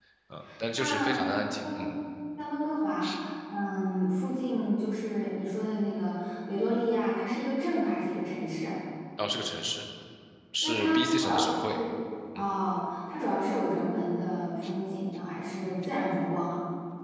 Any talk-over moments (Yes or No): Yes